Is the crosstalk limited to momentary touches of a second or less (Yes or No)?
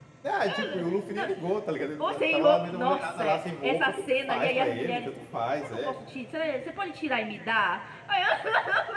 No